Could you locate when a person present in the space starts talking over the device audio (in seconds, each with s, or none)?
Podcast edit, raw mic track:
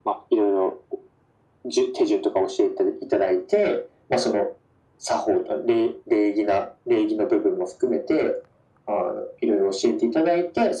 none